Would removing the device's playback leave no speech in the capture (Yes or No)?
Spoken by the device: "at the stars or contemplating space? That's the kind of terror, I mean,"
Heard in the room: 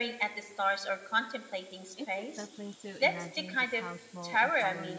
No